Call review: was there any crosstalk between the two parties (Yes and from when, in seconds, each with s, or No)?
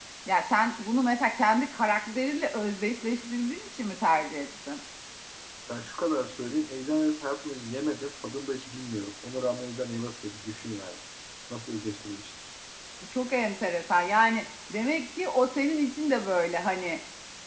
No